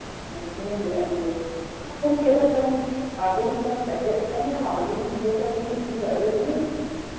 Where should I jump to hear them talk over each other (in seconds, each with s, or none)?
none